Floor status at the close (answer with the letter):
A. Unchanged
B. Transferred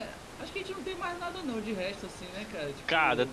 B